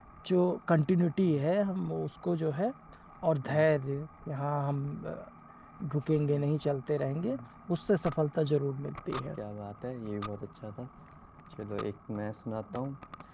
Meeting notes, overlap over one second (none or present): none